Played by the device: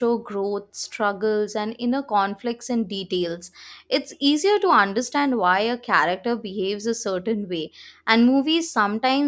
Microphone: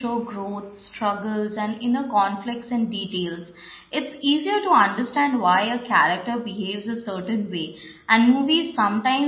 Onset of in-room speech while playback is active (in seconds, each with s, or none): none